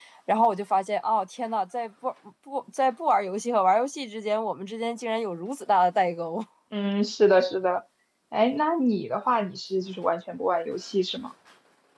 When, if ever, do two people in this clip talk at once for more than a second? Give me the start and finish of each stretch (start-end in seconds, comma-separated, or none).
none